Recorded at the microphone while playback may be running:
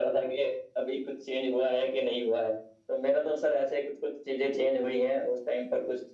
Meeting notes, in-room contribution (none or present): none